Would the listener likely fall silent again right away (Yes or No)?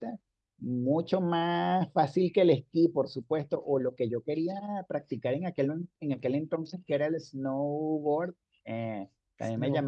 Yes